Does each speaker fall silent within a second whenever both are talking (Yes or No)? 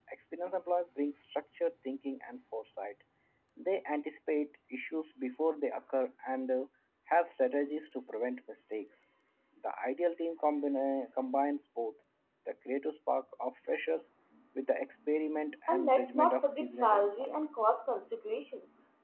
No